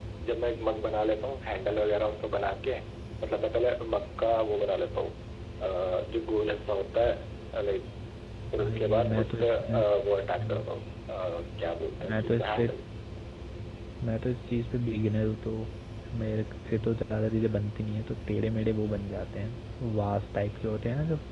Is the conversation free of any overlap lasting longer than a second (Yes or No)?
No